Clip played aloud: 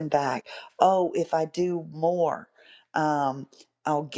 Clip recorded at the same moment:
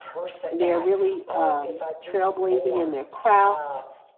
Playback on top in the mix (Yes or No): No